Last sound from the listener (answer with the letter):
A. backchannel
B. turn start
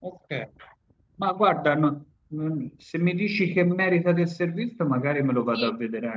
B